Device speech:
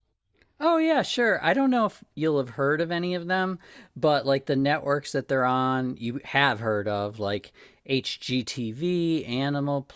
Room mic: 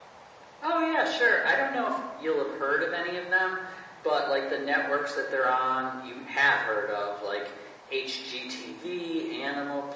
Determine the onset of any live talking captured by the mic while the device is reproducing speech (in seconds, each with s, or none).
none